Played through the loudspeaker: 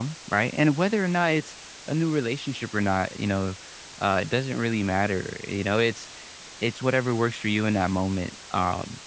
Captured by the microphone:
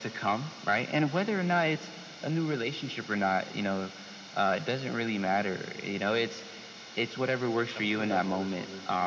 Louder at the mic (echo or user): echo